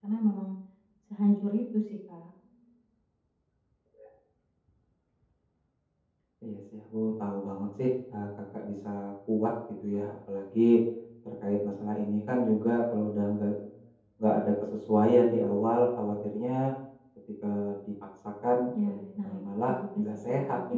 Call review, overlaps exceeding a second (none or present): present